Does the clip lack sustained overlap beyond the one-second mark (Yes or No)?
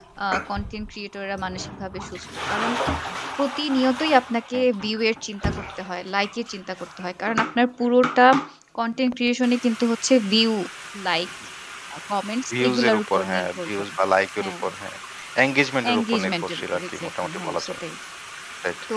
No